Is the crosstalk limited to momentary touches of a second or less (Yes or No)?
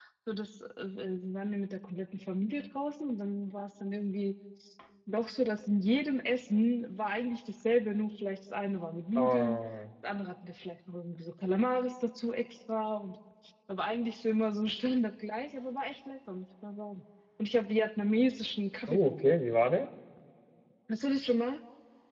Yes